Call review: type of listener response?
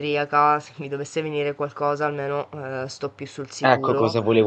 taking over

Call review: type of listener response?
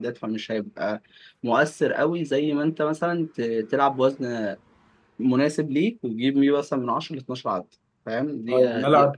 taking over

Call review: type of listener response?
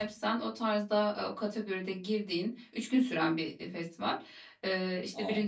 listening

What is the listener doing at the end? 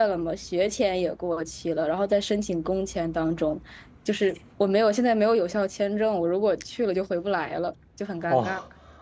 taking over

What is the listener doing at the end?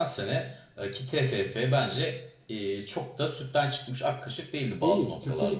taking over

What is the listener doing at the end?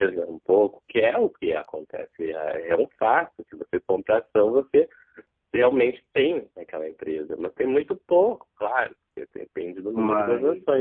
listening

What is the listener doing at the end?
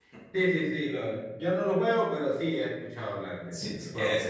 taking over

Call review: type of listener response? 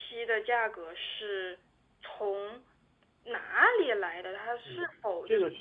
taking over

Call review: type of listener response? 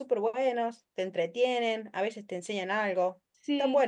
taking over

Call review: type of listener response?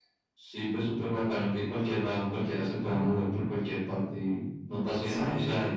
listening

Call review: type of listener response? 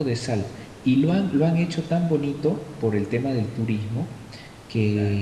listening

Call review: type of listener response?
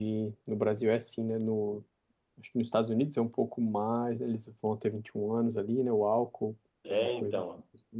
taking over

